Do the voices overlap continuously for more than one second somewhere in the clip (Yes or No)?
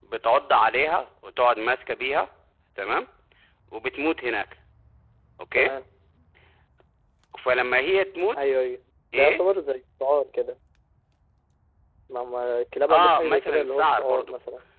Yes